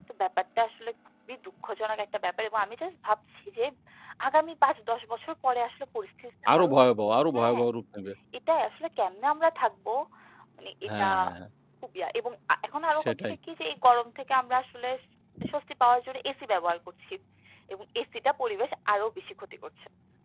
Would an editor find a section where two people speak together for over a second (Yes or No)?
No